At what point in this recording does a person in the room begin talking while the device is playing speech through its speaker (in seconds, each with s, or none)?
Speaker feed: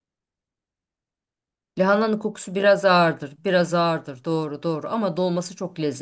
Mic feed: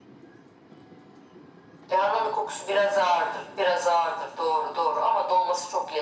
none